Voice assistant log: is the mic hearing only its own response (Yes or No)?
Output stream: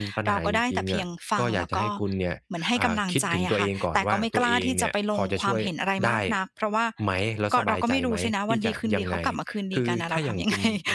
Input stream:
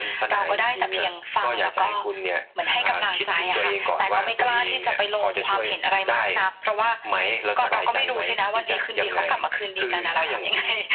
Yes